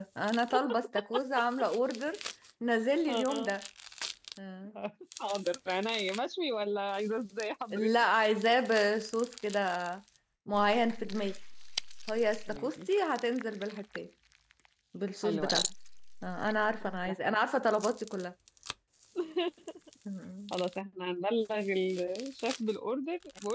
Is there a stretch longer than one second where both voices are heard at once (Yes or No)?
No